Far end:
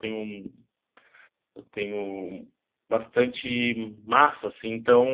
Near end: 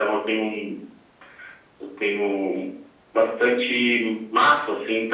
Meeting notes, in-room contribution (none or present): none